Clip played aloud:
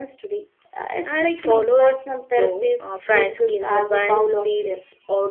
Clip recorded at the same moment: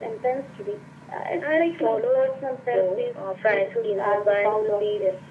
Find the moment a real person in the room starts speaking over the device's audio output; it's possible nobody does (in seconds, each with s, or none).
none